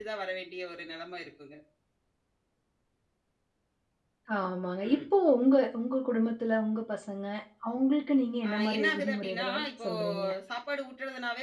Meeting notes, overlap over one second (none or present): present